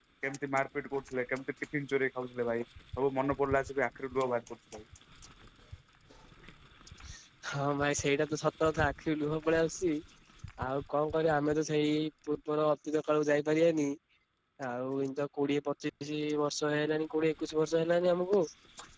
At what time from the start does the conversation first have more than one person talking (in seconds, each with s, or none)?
none